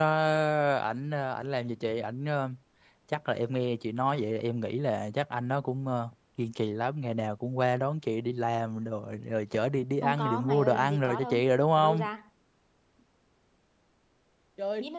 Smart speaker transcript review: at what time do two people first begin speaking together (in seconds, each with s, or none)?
10.0 s